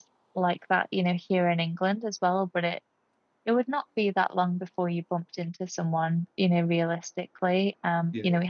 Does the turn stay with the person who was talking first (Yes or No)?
Yes